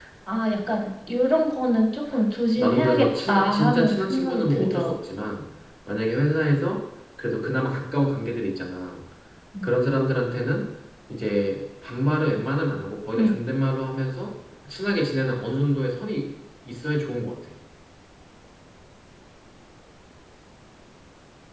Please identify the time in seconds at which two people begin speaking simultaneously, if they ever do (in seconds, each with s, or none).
2.5 s